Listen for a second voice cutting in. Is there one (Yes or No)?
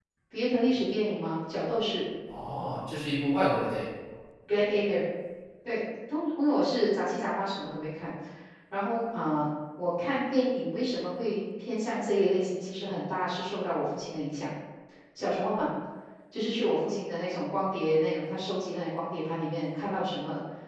No